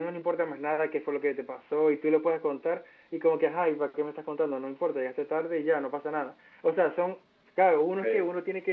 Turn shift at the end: No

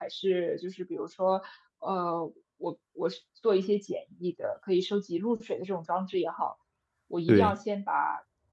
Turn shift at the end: No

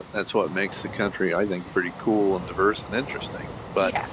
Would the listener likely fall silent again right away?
Yes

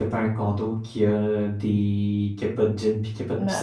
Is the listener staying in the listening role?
No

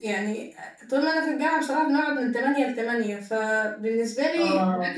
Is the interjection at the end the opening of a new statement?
No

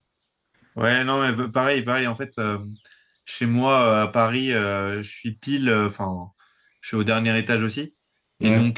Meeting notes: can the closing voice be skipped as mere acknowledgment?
Yes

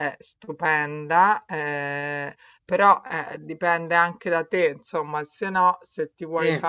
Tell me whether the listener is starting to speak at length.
No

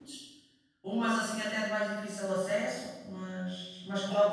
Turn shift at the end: Yes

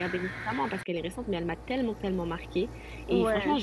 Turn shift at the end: No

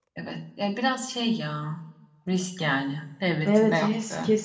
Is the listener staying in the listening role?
No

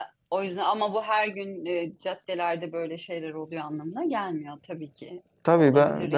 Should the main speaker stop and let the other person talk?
Yes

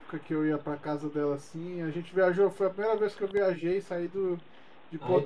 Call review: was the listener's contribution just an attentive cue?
No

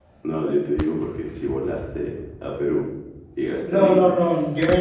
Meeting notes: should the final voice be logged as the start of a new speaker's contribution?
Yes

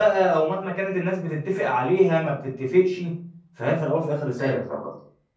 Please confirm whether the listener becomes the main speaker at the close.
Yes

